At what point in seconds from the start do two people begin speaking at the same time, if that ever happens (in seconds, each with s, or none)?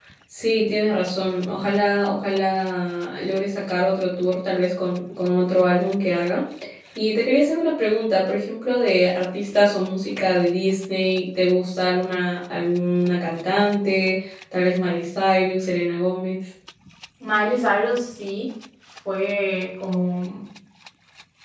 none